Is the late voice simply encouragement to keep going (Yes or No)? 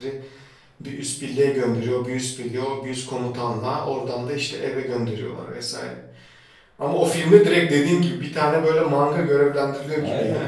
No